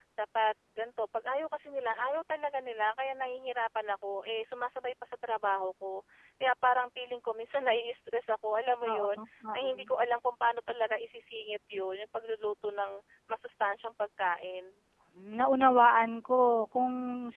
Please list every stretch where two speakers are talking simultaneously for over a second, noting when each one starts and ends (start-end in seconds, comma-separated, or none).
none